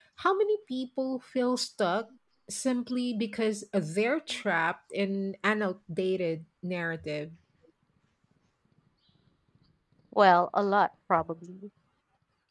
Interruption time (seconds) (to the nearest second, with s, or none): none